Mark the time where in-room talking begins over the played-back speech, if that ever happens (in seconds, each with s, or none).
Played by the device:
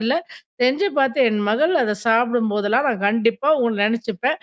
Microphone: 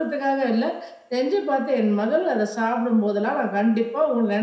none